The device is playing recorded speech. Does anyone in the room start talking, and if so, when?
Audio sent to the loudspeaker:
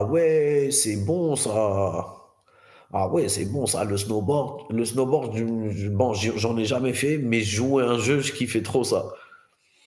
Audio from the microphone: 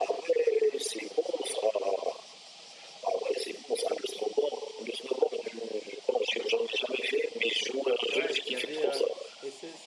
8.1 s

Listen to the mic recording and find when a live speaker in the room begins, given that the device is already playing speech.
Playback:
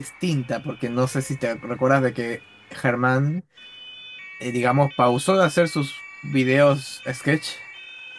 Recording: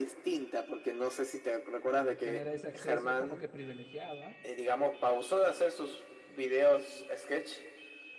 1.9 s

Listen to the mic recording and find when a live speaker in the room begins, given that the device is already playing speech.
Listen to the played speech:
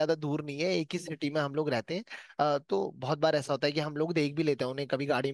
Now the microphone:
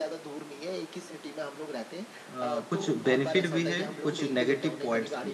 2.3 s

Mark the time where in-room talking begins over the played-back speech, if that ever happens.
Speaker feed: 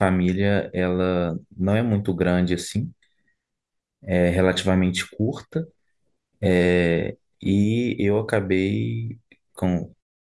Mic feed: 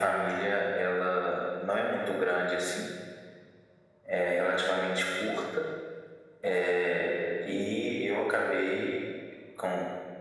none

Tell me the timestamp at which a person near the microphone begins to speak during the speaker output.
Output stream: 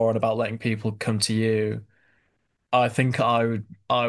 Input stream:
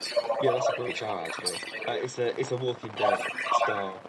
0.4 s

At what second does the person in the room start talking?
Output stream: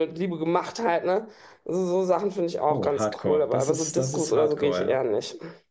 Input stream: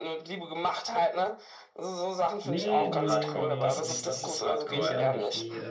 2.4 s

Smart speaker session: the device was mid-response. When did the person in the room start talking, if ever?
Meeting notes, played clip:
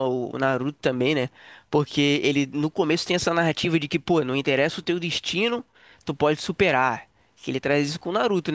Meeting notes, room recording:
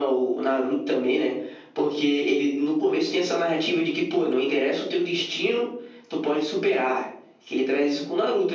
none

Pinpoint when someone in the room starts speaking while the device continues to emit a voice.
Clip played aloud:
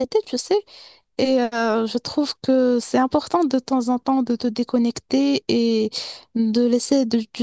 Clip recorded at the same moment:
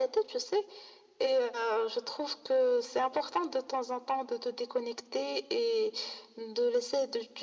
none

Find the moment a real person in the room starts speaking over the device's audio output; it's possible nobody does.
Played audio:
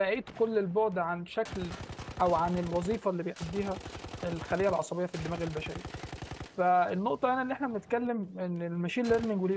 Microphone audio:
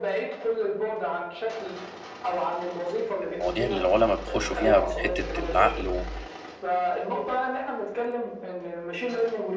3.3 s

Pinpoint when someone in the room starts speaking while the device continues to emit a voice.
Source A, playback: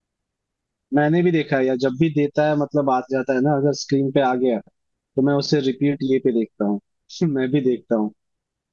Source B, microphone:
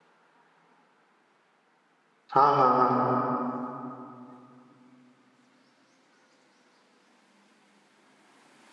2.3 s

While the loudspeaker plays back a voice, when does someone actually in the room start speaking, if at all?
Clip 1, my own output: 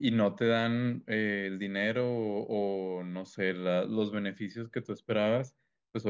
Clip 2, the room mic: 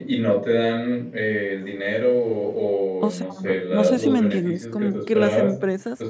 3.0 s

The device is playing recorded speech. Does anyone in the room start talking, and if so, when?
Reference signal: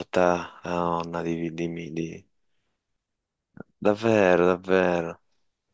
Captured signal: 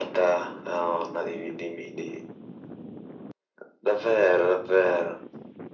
none

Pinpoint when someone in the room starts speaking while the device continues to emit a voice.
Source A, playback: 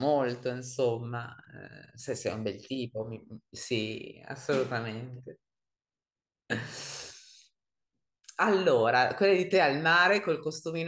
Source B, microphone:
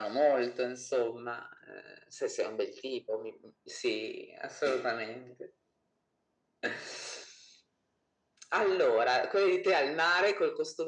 none

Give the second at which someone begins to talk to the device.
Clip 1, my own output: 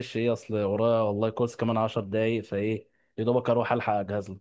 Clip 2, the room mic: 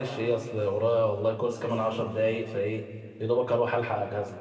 none

